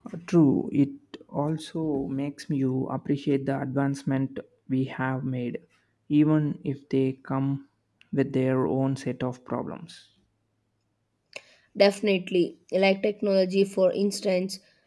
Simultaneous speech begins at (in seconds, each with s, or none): none